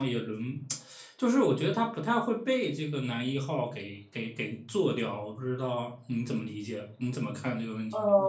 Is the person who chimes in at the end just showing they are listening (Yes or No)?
No